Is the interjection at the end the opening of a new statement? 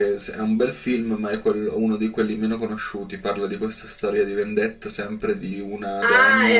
Yes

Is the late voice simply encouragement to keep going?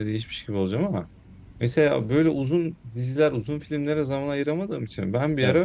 Yes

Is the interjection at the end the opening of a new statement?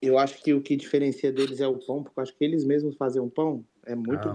Yes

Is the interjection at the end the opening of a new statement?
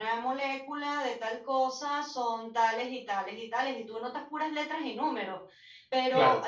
No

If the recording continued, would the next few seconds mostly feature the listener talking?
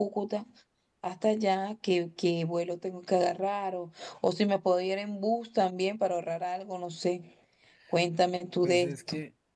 Yes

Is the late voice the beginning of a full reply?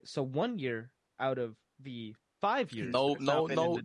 Yes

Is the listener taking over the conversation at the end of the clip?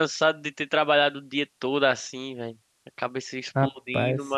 No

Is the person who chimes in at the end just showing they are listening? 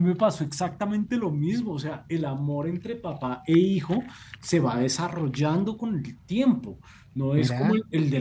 Yes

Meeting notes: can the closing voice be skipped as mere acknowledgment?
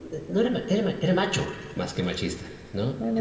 Yes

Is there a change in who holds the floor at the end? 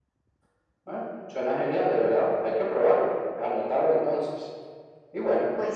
No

